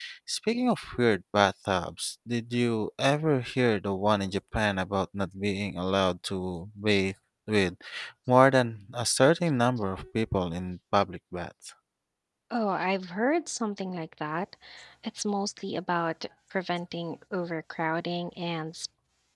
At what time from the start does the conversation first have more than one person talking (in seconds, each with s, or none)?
none